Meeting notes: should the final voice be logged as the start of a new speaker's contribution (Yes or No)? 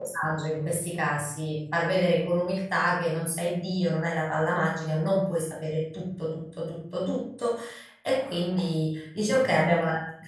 No